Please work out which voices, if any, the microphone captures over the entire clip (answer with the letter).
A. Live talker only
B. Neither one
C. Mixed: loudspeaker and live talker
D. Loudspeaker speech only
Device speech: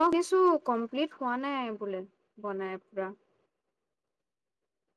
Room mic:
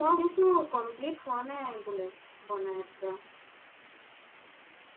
D